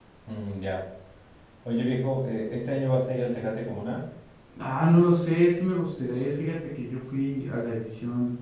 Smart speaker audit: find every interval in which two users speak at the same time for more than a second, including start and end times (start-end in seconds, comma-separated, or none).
none